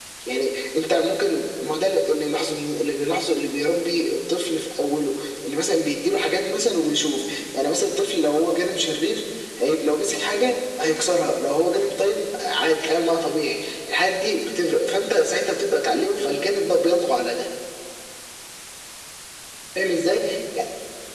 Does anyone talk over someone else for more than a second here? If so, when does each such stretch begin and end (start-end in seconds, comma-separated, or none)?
none